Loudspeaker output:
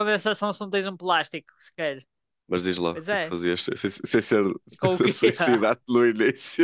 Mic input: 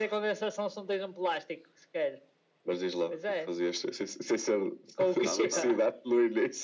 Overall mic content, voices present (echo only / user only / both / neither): both